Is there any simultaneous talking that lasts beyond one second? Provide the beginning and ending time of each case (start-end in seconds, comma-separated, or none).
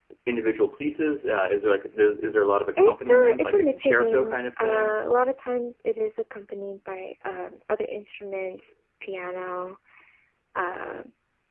2.8-4.9